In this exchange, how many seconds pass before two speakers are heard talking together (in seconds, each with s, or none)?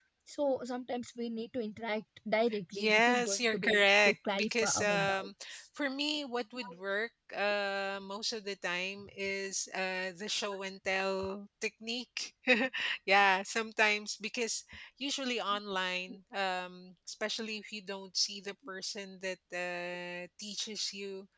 2.5 s